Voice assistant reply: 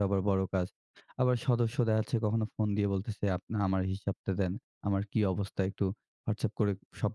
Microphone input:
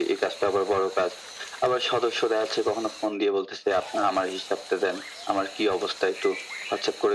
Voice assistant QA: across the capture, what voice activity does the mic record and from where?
echo only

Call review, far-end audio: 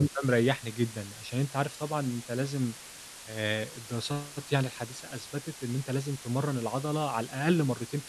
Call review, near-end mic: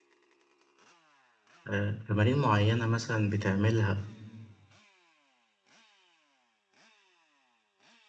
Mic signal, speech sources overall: user only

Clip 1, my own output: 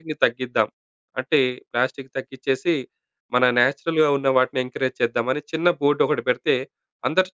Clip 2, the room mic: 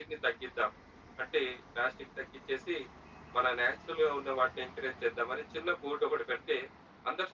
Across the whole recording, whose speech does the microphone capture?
echo only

